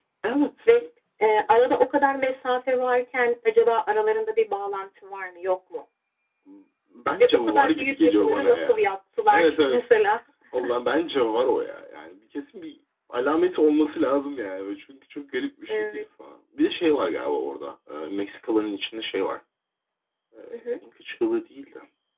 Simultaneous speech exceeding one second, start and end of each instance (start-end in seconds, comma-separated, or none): 7.2-8.9